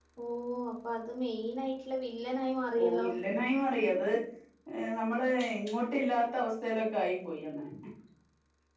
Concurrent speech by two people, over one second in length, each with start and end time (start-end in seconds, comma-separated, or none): none